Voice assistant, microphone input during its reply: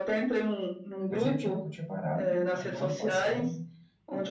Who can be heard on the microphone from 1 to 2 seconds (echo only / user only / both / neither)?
both